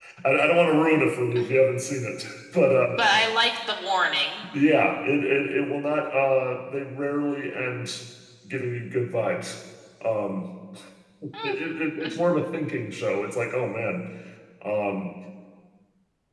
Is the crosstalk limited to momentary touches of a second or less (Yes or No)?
Yes